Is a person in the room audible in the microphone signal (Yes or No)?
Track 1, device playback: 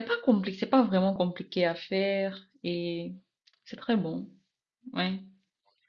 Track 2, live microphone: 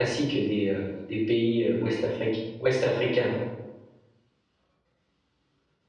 Yes